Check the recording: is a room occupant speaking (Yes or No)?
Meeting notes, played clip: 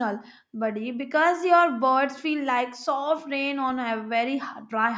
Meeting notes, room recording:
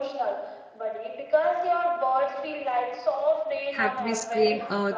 Yes